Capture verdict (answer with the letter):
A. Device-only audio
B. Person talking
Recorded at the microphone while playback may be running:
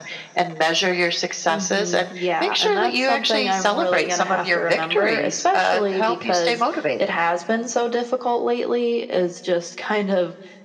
A